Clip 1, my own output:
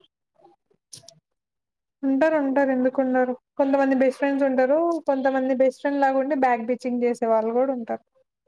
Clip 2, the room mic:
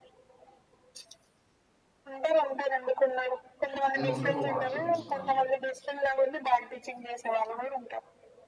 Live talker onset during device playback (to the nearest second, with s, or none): 4 s